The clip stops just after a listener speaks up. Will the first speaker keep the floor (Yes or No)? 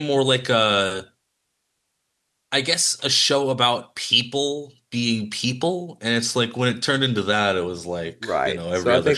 No